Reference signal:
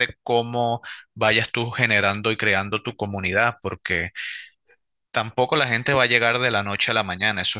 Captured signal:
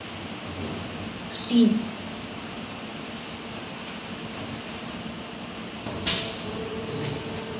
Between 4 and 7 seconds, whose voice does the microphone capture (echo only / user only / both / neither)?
neither